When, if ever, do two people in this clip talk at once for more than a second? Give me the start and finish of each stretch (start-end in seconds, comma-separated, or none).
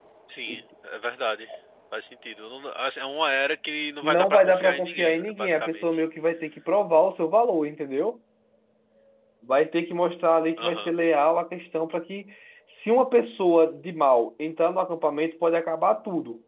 4.0-6.0